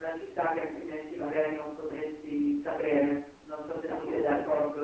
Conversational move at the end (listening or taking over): taking over